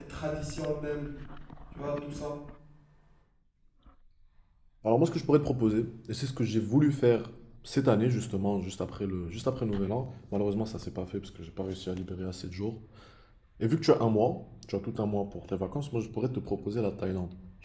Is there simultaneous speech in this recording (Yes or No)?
No